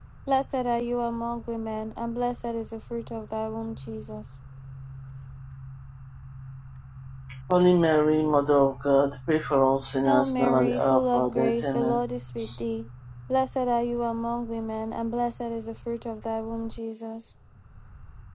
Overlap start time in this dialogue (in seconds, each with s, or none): 10.0 s